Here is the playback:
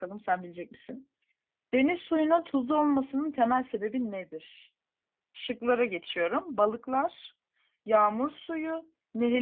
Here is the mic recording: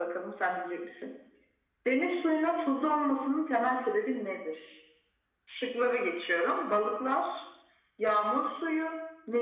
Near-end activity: none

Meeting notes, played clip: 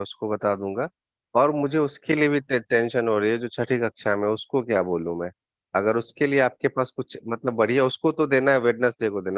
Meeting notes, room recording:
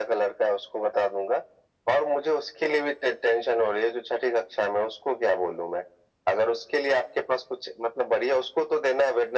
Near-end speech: none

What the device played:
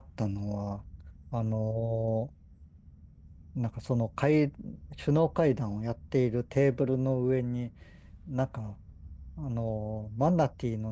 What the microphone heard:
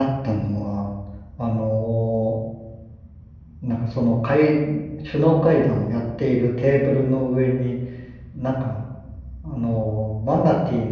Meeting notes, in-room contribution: none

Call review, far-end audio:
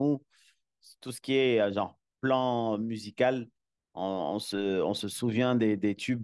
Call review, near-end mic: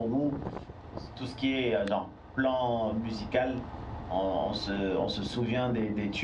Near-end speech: none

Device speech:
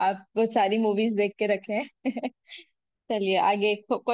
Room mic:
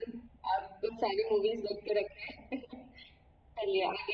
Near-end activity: none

